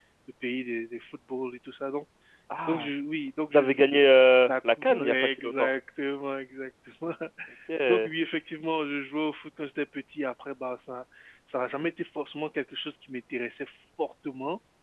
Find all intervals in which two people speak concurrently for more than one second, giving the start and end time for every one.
4.5-5.7

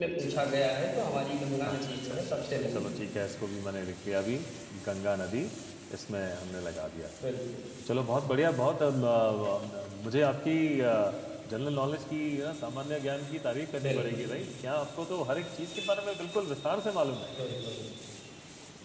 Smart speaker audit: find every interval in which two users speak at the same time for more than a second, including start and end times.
1.7-3.0

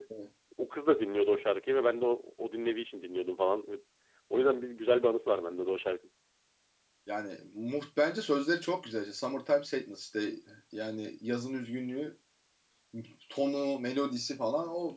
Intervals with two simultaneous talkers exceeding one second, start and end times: none

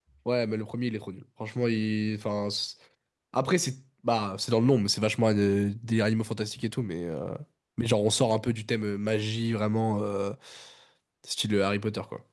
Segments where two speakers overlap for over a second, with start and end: none

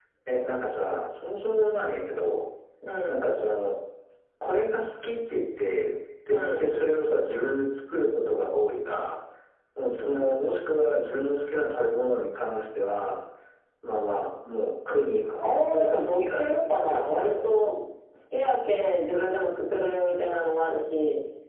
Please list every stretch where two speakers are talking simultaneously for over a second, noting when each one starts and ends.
15.4-17.3

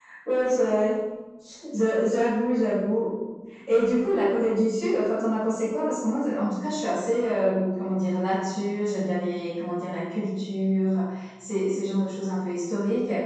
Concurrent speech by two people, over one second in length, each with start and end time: none

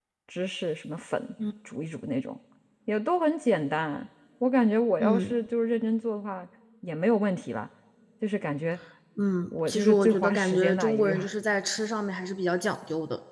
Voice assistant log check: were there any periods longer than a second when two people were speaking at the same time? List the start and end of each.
9.7-11.1

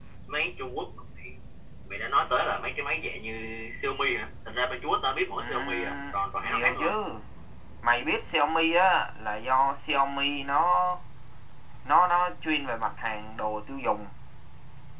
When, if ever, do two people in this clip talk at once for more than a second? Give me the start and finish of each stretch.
5.4-7.0

